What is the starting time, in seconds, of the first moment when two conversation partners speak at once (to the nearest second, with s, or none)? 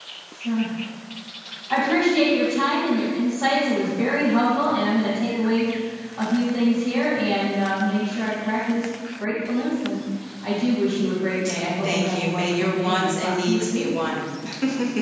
12 s